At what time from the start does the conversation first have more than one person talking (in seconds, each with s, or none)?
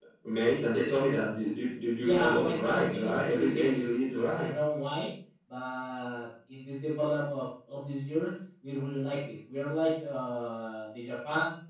2.0 s